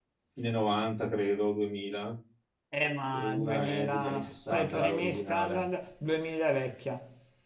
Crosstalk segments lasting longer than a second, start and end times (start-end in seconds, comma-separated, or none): 3.1-5.6